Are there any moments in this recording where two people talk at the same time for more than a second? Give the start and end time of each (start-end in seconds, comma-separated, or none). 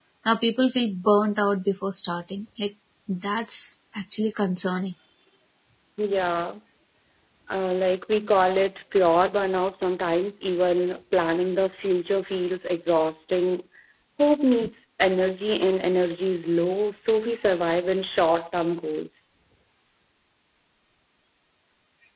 none